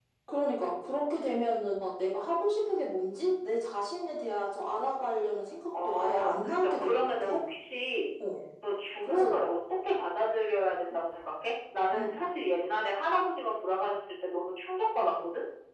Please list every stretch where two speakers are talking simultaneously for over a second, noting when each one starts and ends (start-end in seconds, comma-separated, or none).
5.8-7.3